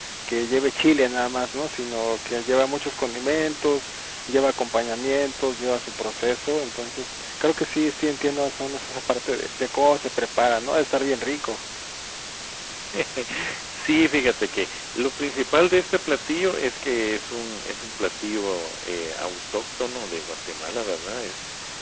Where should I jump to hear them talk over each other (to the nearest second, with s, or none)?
none